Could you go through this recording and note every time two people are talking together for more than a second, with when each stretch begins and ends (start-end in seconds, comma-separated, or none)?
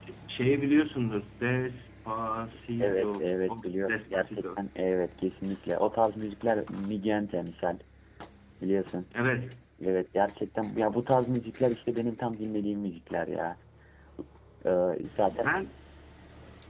2.8-4.4